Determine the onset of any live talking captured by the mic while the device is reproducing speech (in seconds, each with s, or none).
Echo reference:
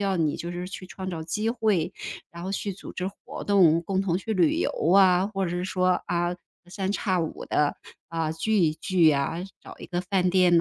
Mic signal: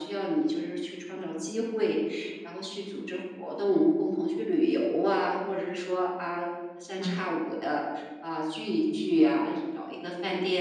7.0 s